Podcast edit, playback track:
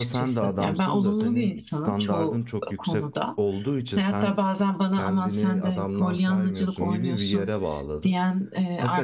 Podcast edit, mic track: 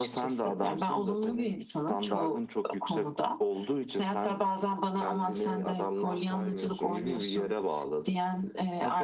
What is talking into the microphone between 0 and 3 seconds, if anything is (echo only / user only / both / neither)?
echo only